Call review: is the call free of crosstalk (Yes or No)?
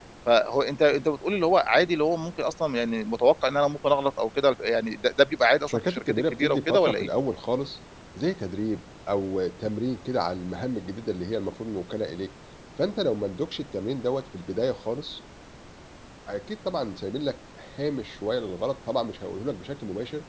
No